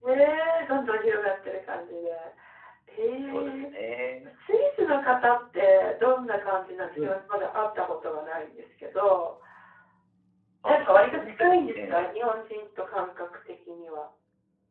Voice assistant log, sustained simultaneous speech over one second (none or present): present